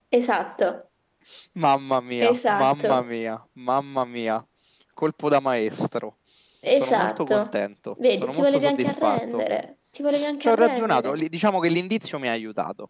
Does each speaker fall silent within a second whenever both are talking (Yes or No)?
No